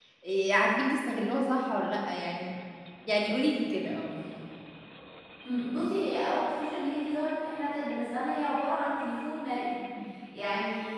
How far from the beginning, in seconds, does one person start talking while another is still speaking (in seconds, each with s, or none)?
none